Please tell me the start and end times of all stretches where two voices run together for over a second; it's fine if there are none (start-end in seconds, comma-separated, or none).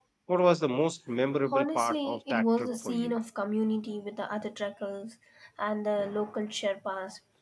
1.5-3.1